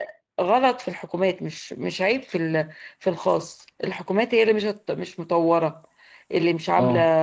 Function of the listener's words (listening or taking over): taking over